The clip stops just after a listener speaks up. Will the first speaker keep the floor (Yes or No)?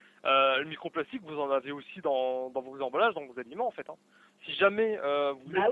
No